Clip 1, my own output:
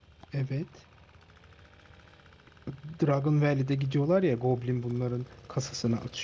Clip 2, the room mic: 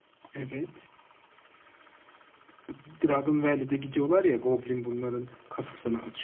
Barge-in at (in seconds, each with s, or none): none